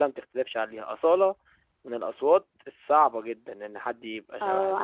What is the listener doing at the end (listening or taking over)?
taking over